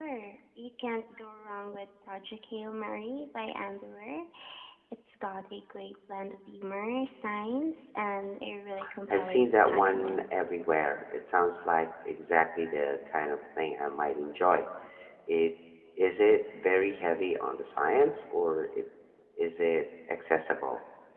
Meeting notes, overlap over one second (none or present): present